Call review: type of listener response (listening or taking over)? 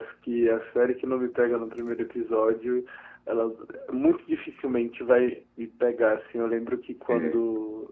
listening